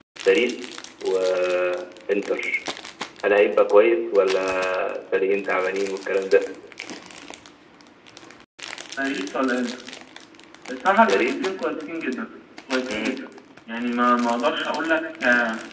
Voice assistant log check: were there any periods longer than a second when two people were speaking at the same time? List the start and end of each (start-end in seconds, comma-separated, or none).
none